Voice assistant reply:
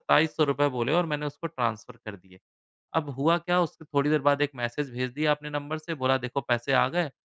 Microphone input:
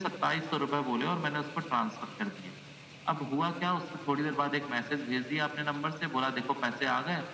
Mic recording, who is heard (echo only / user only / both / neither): echo only